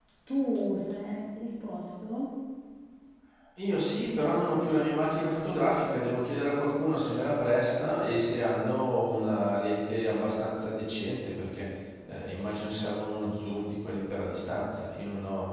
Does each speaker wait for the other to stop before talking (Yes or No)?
Yes